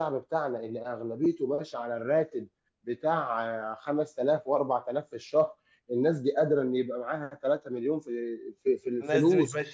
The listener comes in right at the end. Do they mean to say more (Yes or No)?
Yes